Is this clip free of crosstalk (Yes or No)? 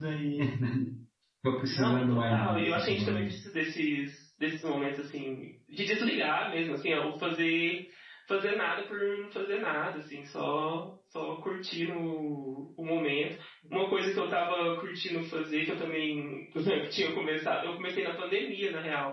No